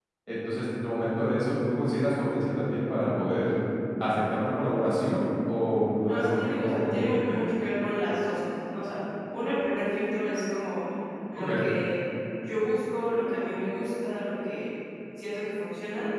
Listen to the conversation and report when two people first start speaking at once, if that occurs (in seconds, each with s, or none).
6.1 s